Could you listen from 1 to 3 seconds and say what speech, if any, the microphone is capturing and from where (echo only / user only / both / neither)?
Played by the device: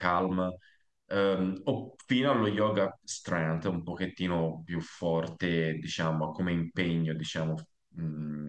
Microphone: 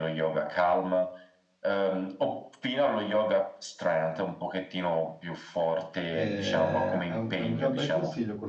echo only